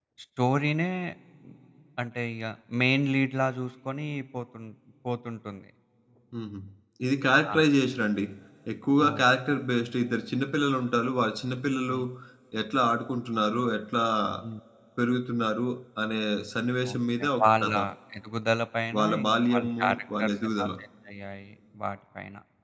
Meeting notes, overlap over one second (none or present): present